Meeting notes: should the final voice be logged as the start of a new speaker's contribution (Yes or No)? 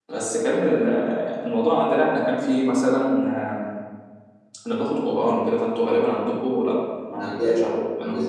Yes